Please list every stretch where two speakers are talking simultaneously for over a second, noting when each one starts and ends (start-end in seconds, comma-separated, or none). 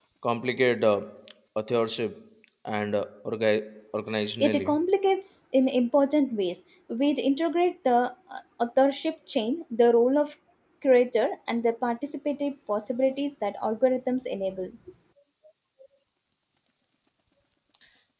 none